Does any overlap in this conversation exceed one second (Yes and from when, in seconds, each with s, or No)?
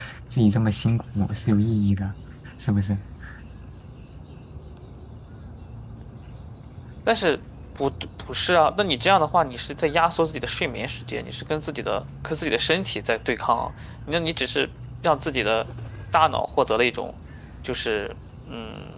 No